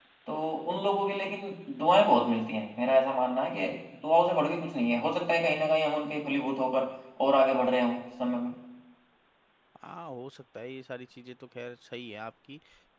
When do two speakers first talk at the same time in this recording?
none

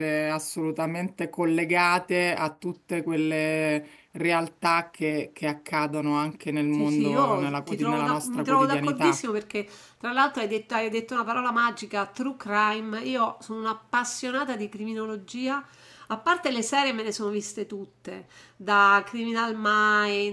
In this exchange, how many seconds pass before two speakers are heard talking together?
6.8 s

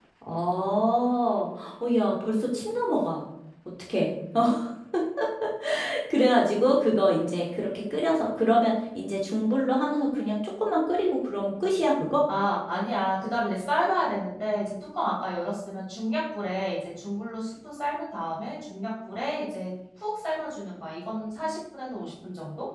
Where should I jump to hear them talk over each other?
none

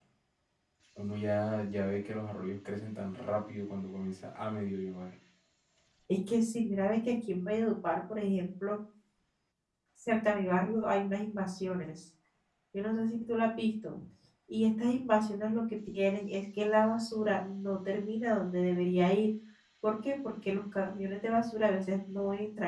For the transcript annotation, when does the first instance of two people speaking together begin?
none

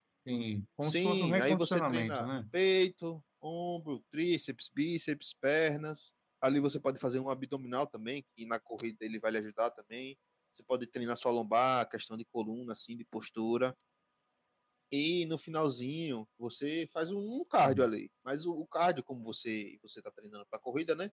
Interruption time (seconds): 0.8 s

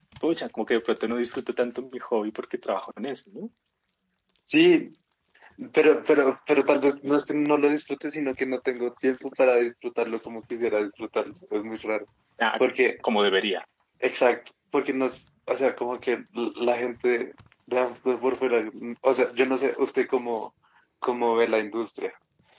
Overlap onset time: none

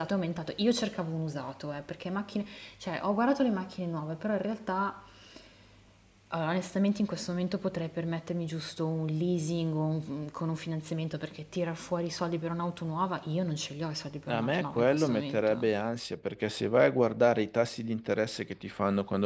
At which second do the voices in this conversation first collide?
14.3 s

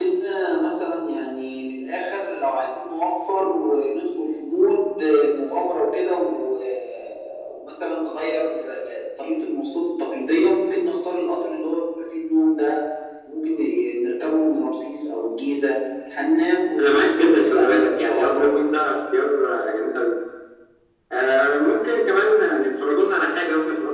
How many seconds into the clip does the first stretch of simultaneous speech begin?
16.8 s

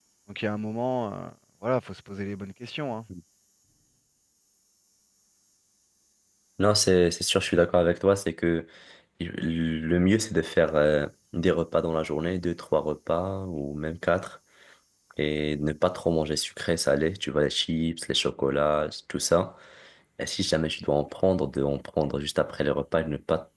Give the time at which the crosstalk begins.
none

